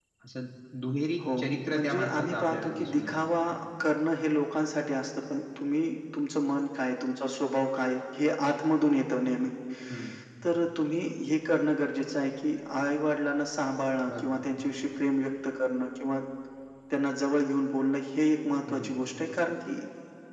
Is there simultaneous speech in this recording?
Yes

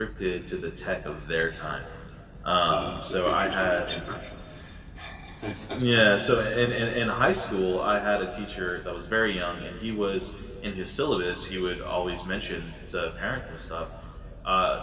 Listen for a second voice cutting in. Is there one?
Yes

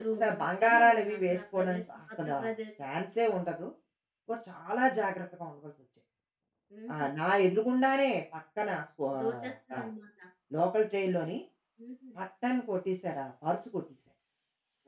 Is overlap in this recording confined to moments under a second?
No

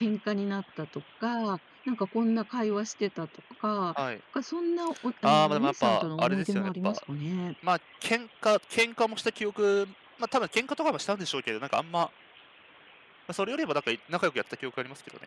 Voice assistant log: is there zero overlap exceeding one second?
No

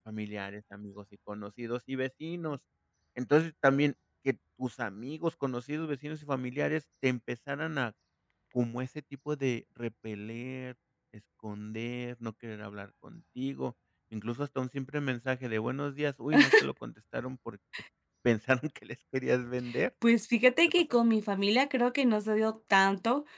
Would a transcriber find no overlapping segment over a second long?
Yes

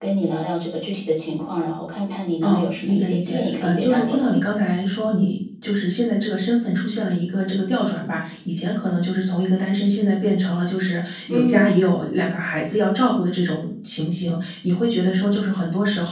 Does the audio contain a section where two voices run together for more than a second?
Yes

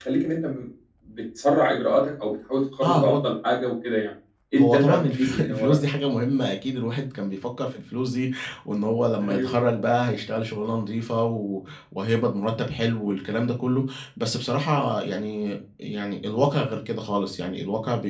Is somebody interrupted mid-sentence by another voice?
Yes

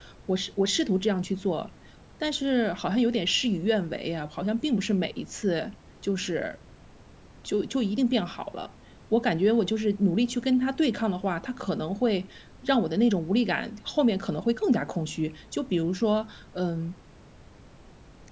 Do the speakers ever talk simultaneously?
No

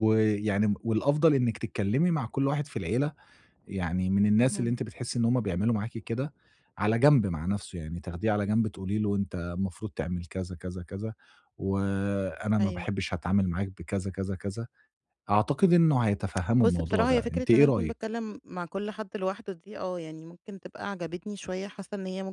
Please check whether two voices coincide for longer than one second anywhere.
Yes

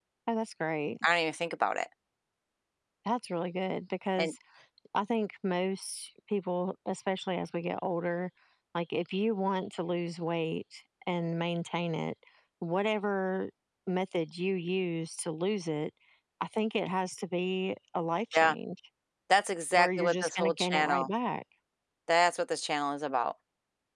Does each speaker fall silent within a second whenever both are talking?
No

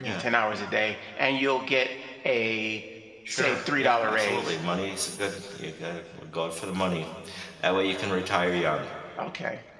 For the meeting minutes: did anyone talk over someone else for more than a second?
Yes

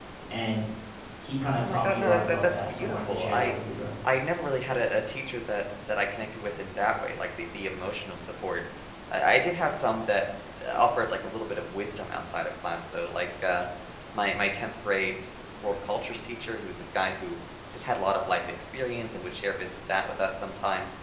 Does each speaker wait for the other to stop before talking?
No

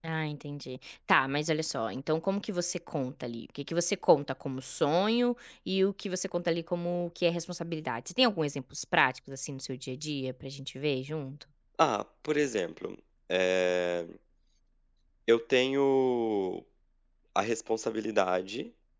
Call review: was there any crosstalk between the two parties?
No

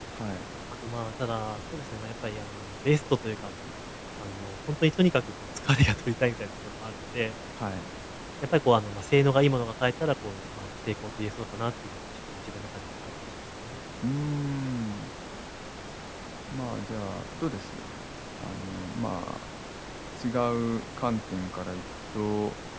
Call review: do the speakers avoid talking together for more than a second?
Yes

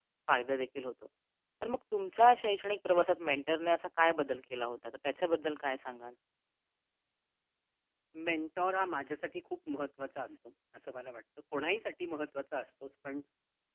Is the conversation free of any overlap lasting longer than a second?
Yes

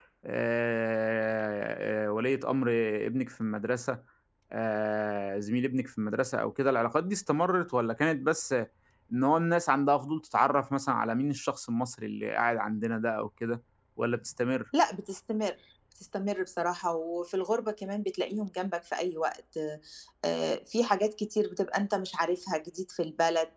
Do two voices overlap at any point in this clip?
No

